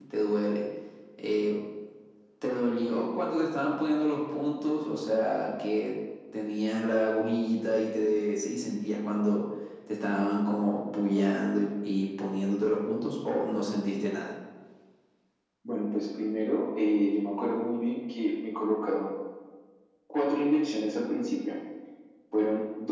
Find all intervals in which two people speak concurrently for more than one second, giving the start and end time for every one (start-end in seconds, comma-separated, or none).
none